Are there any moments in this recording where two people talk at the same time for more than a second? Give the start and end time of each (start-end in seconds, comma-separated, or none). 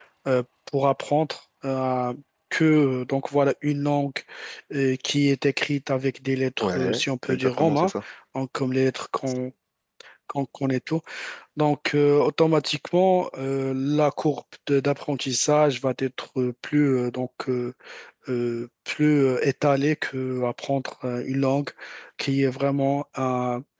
6.6-7.9